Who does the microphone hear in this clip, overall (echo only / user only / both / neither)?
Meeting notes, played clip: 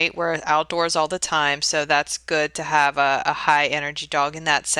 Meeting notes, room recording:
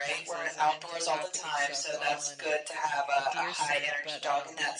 both